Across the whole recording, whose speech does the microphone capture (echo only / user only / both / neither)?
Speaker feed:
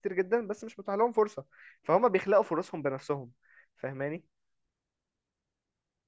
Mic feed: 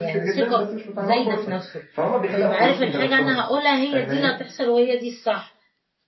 both